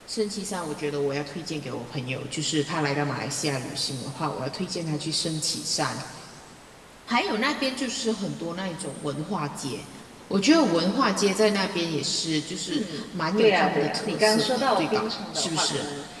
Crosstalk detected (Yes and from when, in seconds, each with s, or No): Yes, from 12.7 s